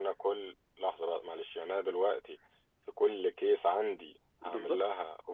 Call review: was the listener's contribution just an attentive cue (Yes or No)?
No